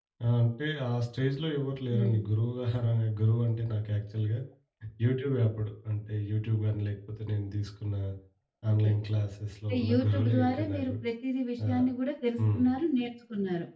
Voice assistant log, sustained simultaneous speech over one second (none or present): present